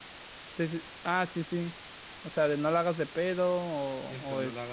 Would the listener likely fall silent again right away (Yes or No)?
No